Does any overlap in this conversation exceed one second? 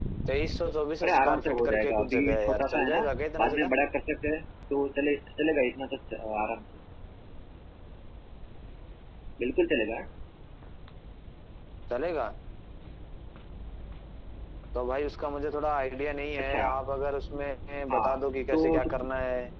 Yes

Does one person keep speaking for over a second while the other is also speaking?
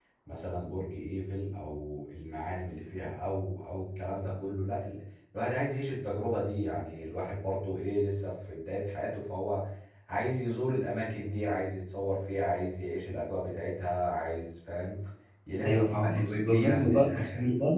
Yes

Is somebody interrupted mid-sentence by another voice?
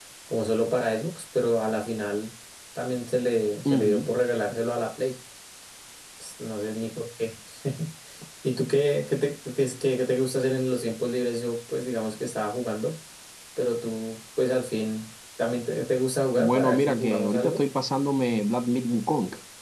Yes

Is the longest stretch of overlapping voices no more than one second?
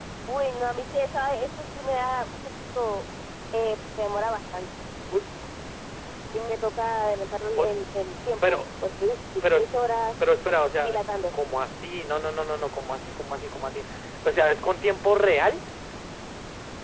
Yes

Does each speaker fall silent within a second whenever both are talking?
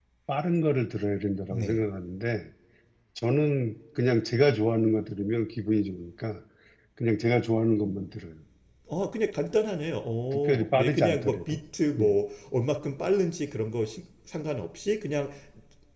No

